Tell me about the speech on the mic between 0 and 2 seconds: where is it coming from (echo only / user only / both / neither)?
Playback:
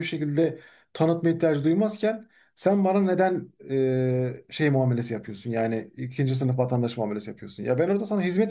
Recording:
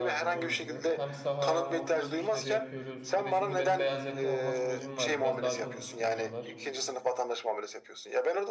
both